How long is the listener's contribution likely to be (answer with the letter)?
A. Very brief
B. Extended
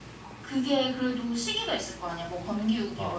B